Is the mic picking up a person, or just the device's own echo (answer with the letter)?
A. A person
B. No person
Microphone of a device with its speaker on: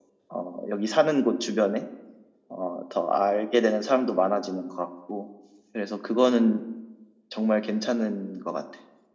B